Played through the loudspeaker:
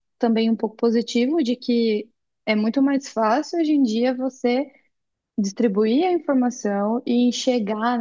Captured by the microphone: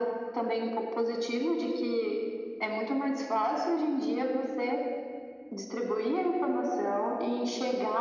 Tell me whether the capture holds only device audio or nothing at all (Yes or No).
Yes